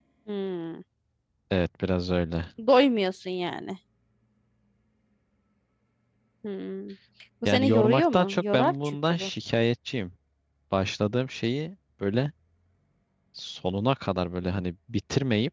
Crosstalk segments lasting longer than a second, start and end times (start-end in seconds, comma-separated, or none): 7.5-9.3